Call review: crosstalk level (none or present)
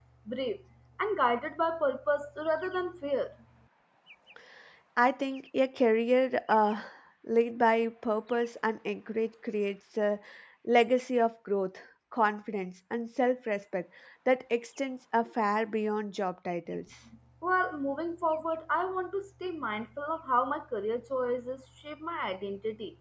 none